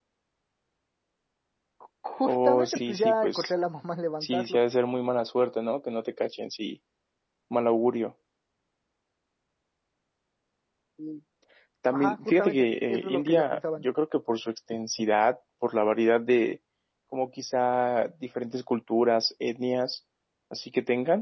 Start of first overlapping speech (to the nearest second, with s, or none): 2 s